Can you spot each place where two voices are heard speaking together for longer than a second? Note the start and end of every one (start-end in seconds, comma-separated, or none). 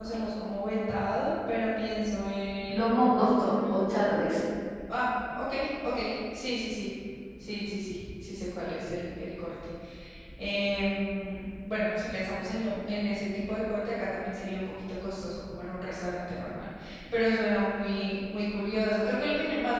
2.7-4.1